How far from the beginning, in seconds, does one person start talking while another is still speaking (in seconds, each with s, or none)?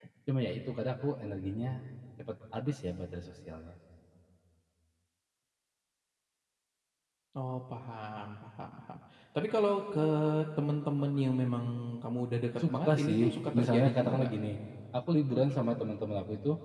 12.6 s